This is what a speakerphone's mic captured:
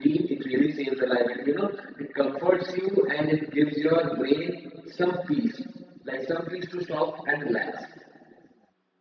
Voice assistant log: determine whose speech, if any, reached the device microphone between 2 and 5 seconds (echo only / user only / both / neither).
echo only